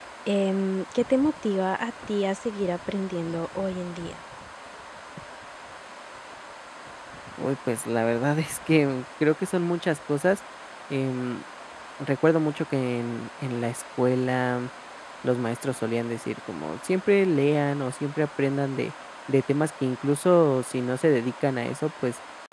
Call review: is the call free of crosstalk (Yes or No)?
Yes